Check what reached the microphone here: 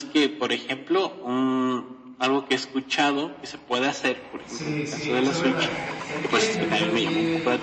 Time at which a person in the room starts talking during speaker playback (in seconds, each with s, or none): 4.4 s